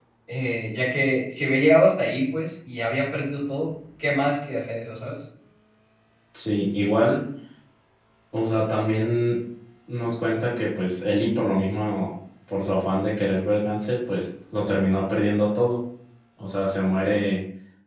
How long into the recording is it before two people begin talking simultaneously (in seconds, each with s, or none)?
none